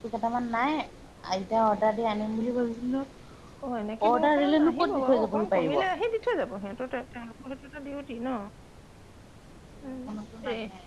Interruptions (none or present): present